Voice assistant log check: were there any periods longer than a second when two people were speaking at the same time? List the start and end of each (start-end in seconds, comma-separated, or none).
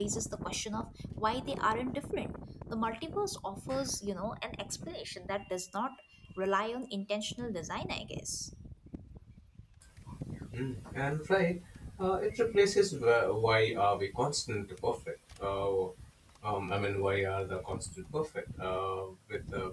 none